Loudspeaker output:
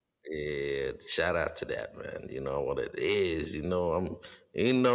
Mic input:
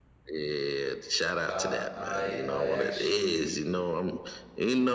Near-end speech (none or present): present